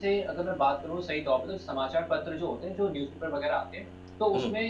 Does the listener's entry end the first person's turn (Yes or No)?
No